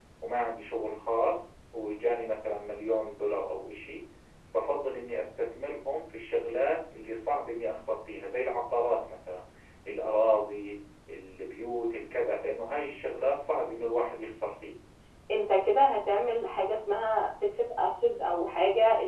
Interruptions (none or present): none